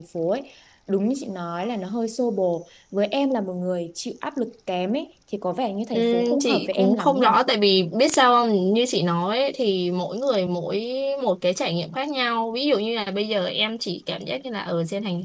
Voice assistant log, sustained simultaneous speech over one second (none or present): present